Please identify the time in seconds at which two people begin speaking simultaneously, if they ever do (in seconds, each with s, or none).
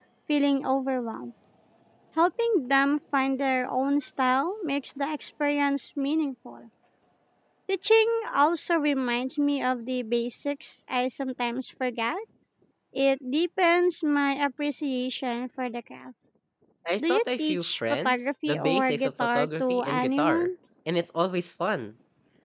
17.1 s